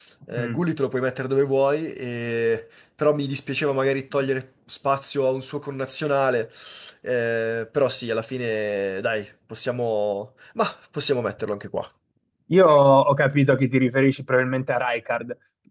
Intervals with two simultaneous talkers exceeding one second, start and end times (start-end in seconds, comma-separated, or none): none